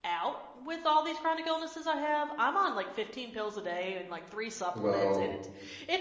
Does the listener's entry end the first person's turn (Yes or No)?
No